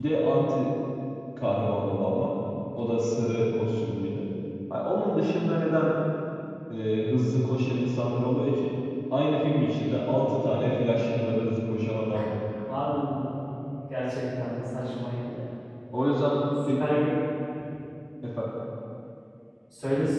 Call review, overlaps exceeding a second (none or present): none